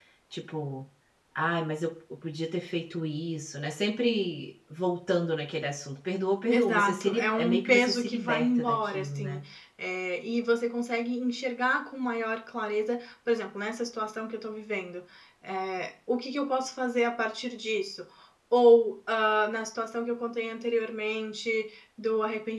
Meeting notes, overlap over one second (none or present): present